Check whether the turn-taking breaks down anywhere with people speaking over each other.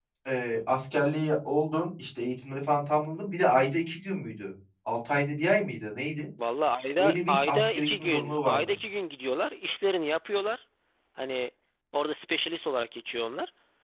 Yes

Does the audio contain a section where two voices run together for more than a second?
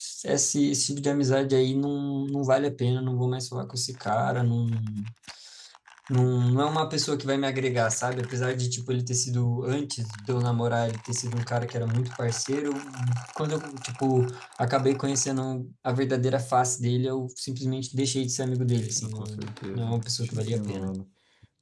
Yes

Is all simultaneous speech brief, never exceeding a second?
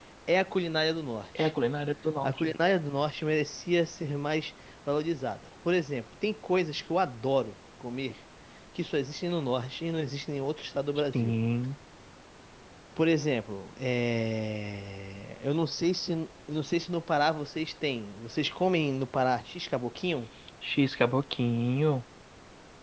Yes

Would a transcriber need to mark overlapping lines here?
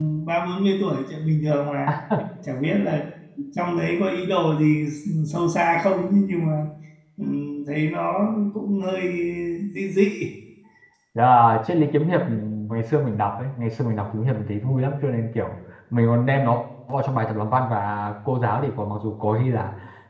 No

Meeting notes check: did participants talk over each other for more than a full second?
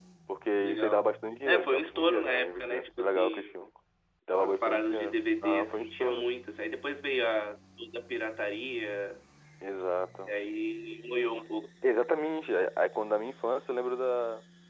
Yes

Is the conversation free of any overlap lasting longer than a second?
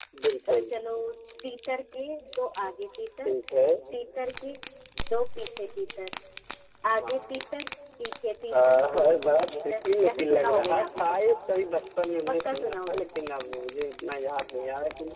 No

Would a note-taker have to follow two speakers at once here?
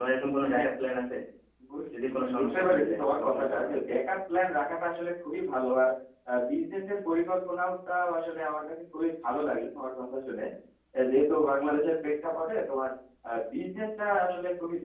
Yes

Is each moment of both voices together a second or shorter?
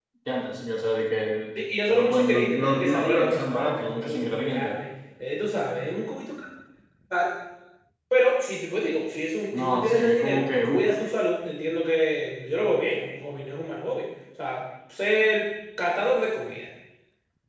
No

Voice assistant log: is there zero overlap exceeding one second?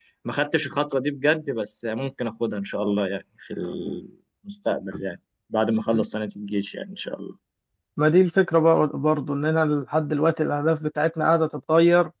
Yes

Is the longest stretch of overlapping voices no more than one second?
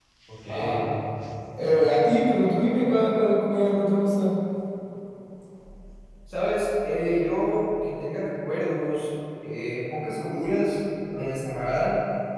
Yes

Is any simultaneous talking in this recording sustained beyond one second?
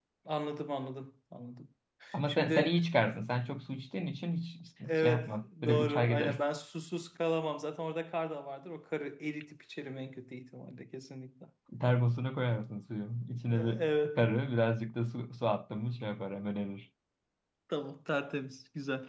Yes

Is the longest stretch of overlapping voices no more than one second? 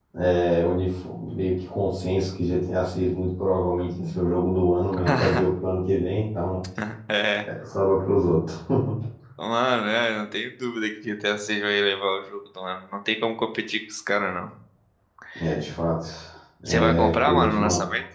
No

